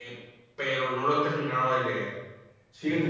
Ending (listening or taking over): taking over